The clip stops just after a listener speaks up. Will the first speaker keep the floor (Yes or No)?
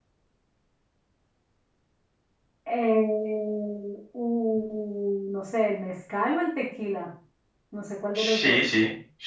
No